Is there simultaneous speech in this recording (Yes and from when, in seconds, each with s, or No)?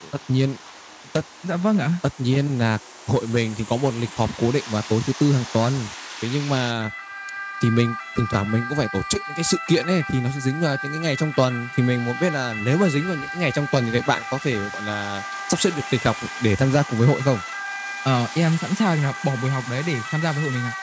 No